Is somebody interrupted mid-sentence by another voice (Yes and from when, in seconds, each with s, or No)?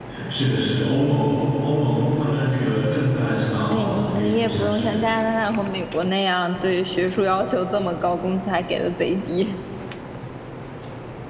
Yes, from 3.7 s